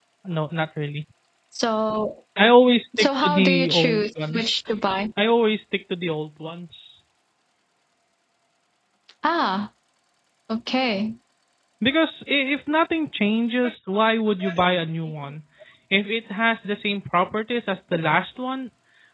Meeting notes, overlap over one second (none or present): present